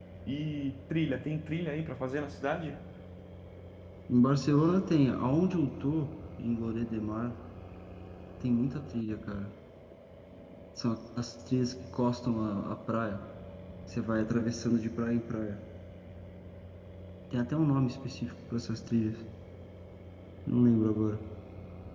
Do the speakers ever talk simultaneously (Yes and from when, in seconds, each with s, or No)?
No